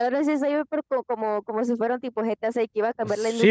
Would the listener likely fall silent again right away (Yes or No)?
No